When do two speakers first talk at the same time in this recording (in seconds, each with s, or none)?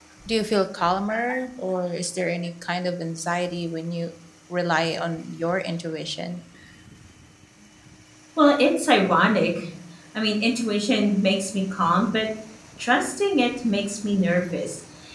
none